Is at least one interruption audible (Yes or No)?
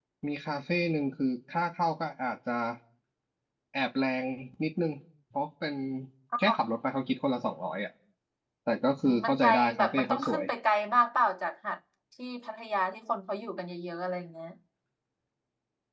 Yes